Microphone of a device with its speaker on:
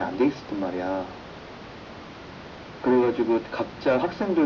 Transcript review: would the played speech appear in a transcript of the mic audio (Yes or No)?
Yes